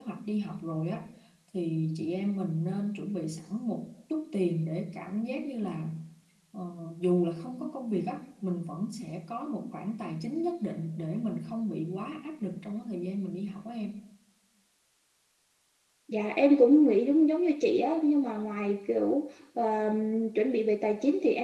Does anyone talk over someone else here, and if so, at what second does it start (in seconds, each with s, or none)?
none